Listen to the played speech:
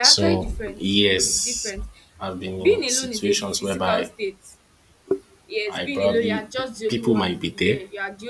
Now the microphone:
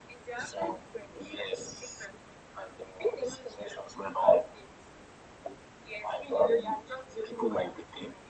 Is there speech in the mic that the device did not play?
No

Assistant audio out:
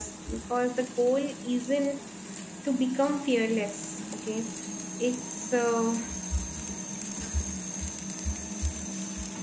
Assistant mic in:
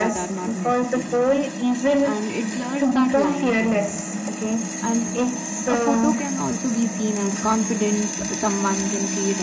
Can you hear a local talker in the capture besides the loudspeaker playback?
Yes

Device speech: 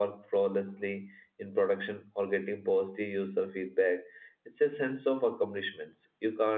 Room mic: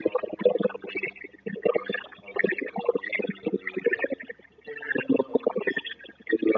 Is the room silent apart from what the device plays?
Yes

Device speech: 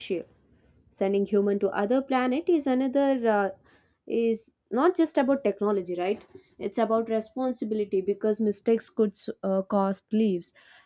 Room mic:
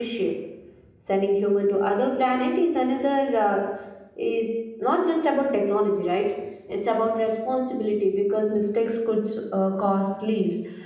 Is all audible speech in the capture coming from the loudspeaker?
Yes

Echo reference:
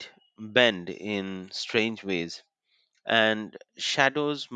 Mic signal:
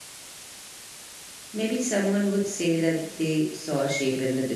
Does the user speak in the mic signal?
Yes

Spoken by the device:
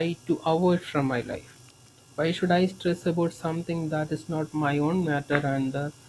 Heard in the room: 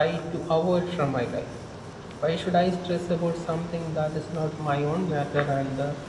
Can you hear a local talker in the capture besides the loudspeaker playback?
No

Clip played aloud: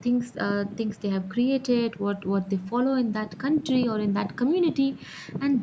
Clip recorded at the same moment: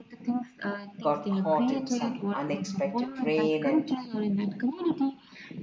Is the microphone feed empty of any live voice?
No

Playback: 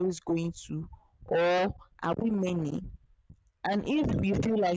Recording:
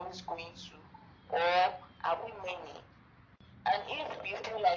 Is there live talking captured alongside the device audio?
No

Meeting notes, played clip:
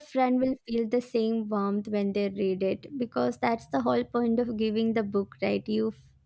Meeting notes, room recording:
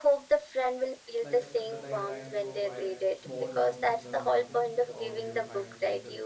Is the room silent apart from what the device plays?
No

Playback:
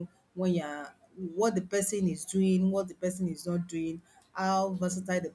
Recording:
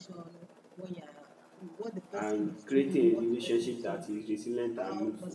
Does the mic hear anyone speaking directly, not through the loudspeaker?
Yes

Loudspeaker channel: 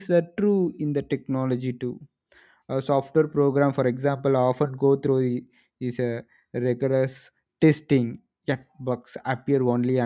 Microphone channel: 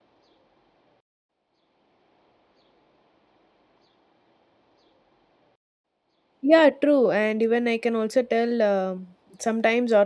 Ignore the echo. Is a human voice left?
Yes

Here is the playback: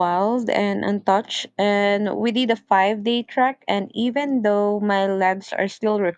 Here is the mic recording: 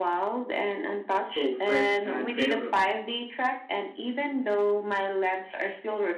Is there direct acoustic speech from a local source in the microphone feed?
Yes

